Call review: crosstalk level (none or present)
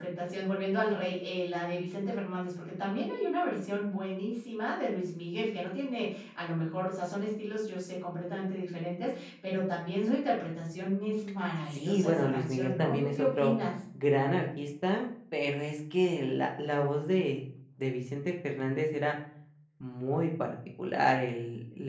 present